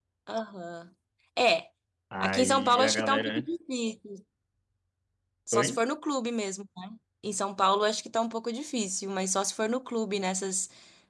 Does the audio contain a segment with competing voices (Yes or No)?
Yes